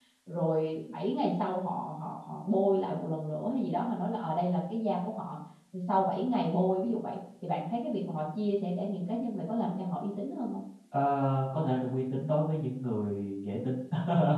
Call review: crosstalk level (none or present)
none